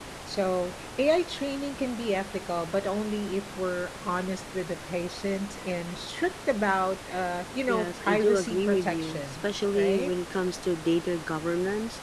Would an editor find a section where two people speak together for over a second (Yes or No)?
Yes